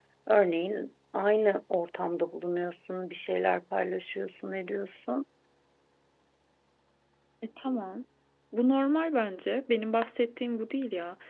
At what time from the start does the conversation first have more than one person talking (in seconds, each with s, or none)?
none